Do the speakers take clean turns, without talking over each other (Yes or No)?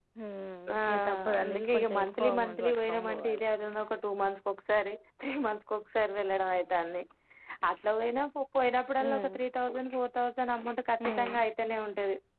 No